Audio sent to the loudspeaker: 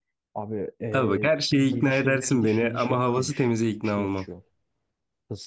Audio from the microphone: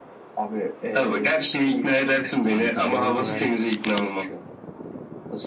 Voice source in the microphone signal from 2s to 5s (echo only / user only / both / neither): both